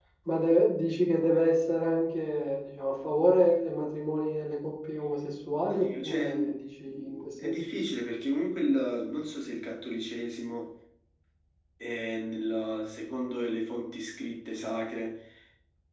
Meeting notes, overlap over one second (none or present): present